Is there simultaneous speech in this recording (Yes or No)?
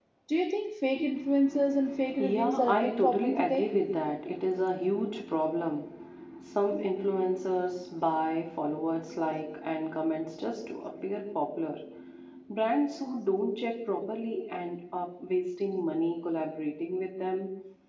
Yes